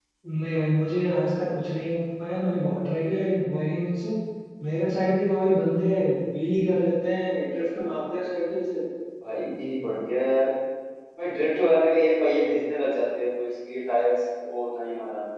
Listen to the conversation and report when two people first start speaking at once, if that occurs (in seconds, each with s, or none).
none